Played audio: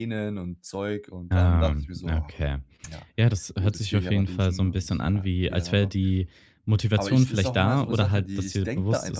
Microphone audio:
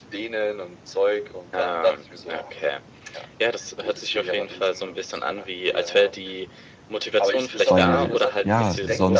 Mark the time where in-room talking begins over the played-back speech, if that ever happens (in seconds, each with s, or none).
7.7 s